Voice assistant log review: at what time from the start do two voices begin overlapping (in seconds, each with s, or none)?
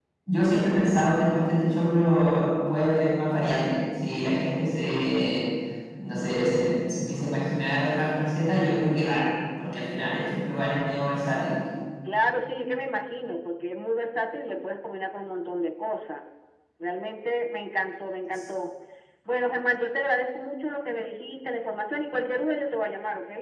none